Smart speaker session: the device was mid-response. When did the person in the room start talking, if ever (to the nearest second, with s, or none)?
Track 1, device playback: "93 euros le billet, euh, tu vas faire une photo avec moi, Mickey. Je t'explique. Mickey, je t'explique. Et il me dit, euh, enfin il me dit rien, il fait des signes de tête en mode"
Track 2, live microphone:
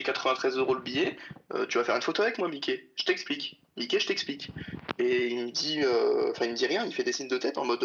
none